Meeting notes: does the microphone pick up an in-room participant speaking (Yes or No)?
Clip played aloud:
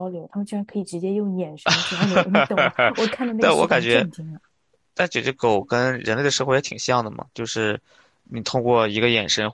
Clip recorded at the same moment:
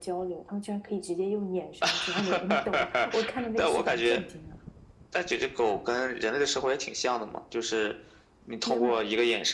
Yes